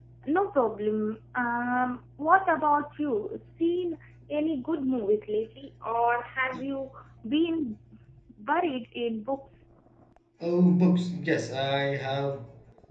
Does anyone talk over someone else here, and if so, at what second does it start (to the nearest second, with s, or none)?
none